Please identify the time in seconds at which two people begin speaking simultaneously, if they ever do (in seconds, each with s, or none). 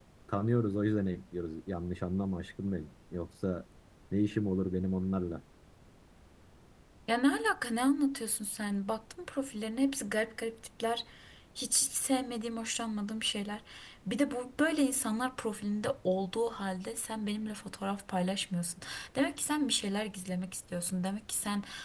none